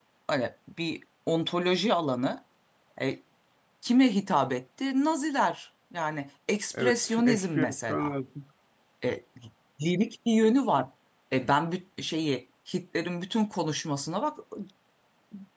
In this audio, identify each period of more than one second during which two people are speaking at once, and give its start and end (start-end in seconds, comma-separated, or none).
6.8-8.1